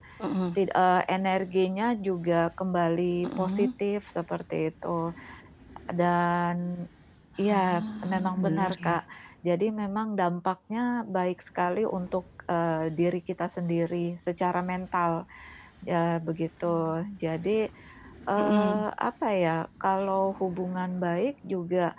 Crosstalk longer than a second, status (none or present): present